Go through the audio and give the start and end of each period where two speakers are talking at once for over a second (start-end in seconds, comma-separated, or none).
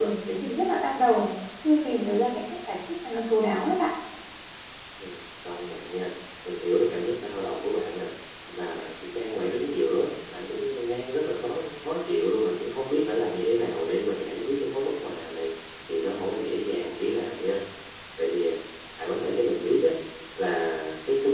none